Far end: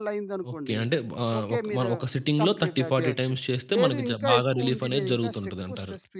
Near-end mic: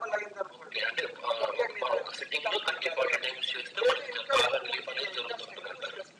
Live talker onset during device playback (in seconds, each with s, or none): none